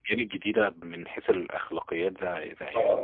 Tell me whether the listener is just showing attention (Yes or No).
No